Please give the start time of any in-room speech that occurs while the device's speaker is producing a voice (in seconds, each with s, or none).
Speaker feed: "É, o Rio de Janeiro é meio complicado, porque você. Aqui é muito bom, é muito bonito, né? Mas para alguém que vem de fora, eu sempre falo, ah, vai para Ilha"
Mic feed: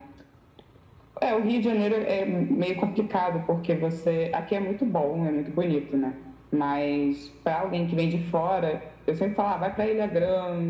none